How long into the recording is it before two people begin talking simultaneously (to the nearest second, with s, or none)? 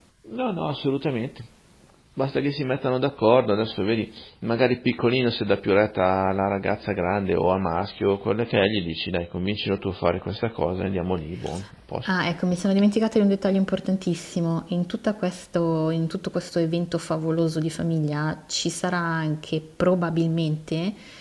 none